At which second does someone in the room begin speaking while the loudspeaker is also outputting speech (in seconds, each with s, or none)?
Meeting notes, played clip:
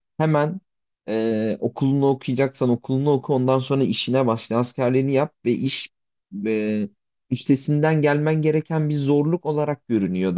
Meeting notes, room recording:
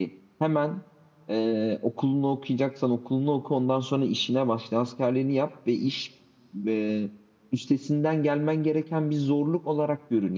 none